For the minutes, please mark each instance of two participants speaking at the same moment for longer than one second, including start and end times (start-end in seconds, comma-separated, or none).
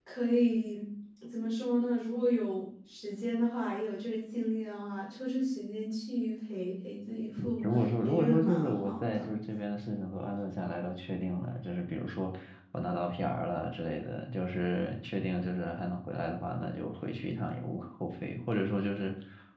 7.6-9.3